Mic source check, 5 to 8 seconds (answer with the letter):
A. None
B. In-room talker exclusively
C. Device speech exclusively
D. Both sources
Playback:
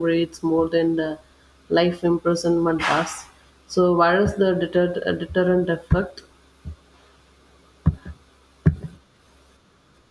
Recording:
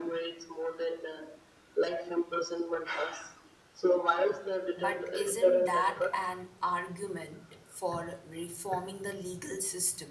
D